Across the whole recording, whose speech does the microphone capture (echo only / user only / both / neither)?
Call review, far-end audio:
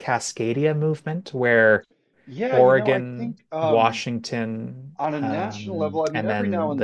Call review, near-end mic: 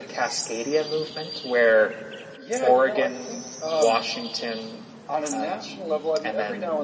echo only